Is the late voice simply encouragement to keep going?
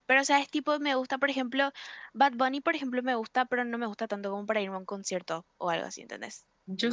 No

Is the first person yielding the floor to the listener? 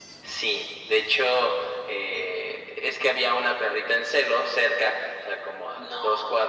No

